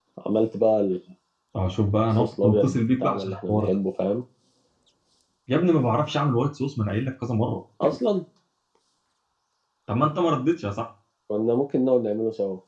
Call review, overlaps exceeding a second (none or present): present